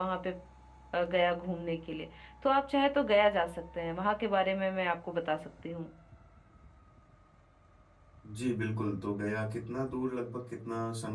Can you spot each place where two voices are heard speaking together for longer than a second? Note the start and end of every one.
none

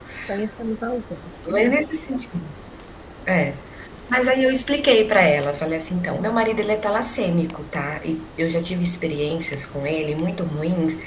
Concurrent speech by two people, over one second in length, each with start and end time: none

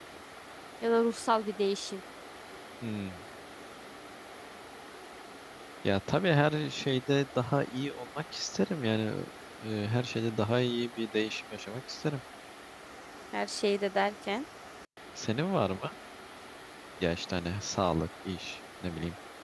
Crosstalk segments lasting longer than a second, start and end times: none

